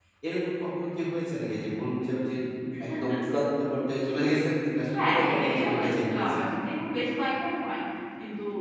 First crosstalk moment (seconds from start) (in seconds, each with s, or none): 4.9 s